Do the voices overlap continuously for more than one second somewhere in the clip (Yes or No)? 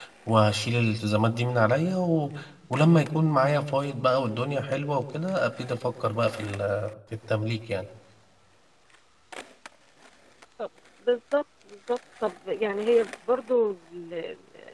No